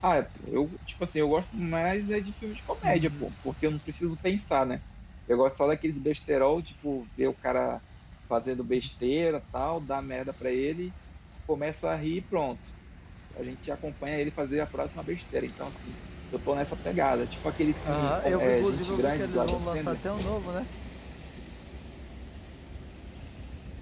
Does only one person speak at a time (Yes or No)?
No